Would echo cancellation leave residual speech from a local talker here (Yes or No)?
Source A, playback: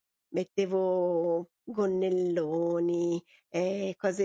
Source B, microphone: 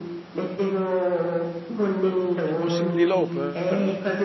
Yes